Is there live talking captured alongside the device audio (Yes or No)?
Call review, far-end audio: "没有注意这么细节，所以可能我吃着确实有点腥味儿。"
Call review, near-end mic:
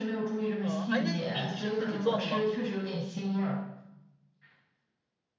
Yes